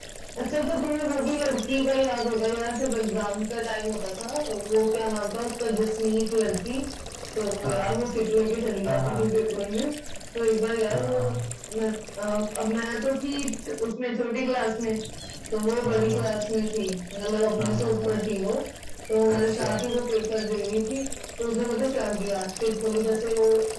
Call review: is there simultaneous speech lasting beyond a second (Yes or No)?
No